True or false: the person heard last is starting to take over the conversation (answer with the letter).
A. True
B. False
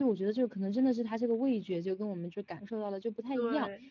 B